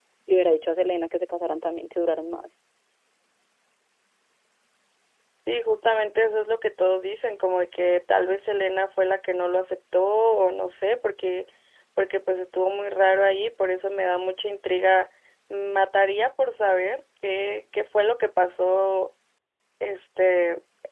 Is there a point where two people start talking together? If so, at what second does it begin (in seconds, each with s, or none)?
none